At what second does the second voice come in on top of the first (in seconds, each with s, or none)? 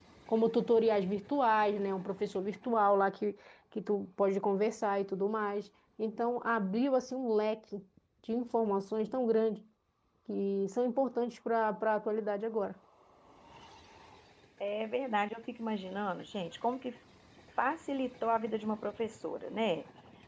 none